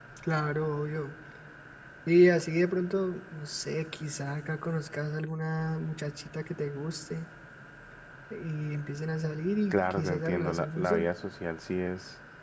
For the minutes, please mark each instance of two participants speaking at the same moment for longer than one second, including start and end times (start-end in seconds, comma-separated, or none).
9.7-11.1